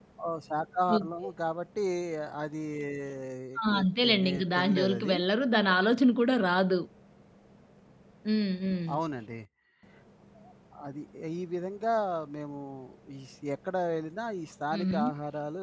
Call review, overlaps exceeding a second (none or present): present